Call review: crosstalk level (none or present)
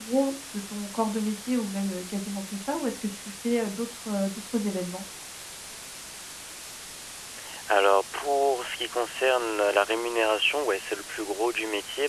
none